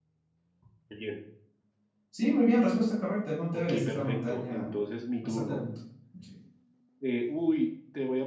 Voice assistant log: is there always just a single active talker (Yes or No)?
No